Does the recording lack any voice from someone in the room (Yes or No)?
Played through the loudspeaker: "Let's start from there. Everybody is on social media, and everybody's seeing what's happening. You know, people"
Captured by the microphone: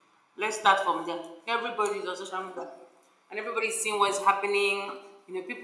Yes